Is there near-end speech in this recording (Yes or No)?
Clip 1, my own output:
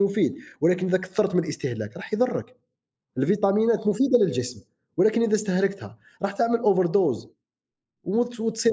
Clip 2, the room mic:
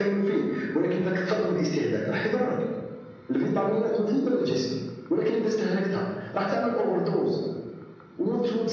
No